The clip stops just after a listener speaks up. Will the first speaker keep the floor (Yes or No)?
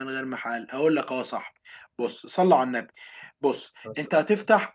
Yes